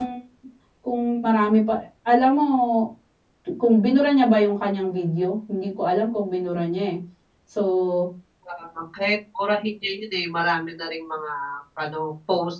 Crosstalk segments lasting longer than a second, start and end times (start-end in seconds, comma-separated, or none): none